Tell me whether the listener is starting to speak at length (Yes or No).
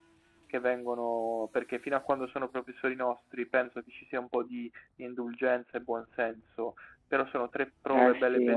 Yes